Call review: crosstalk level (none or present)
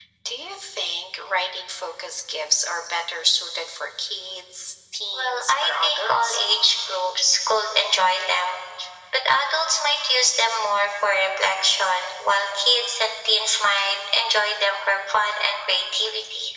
present